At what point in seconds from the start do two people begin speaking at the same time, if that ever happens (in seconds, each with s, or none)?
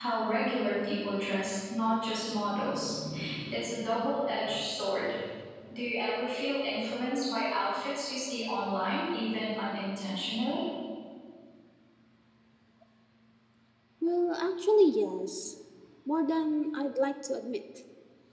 none